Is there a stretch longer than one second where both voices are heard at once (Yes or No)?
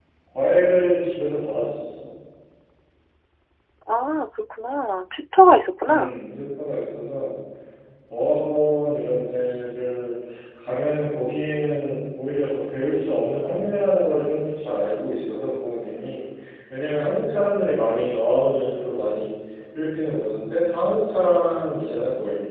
No